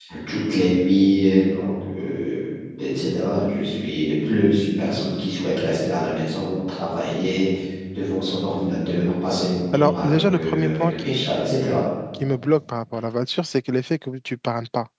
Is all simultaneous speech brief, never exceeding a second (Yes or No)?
No